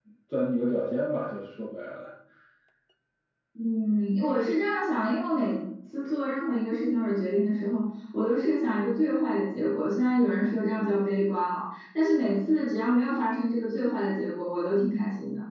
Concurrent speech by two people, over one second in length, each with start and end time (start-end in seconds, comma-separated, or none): none